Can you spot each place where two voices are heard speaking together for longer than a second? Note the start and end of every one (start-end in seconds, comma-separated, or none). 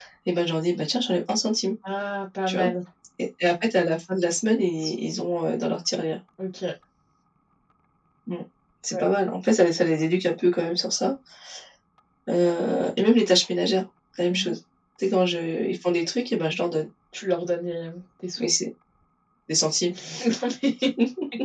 none